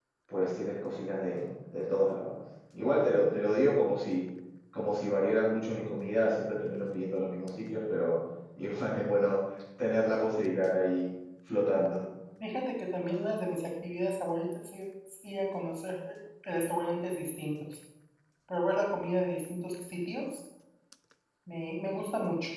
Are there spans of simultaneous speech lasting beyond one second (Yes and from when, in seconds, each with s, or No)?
No